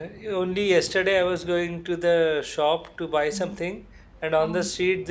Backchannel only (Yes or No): Yes